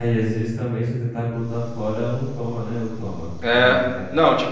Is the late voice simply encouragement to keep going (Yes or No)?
No